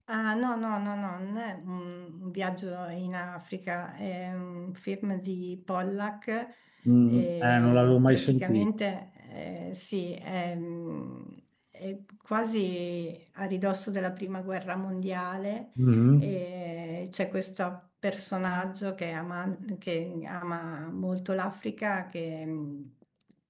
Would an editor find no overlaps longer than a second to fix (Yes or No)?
No